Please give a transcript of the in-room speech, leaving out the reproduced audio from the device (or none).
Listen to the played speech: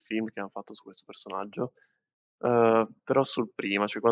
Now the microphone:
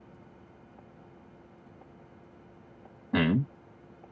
Mh,